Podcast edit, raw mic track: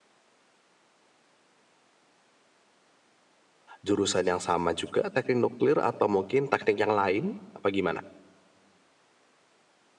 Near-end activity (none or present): present